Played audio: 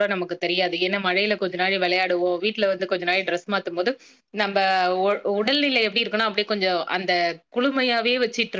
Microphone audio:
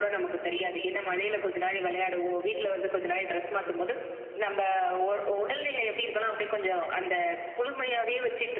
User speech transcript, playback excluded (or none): உம்